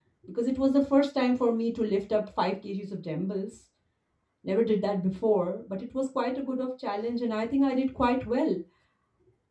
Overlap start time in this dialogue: none

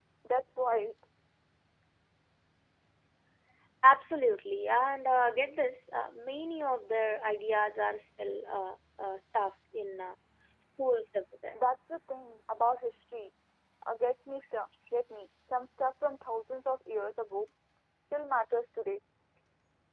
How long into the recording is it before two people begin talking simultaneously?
none

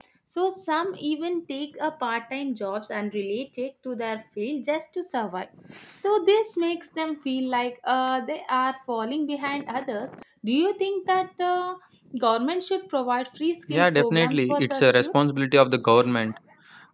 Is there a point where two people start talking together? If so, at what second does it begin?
13.7 s

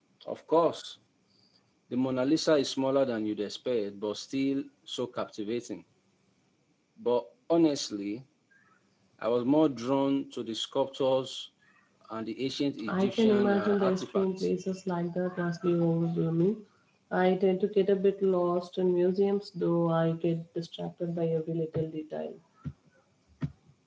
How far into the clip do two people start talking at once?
12.9 s

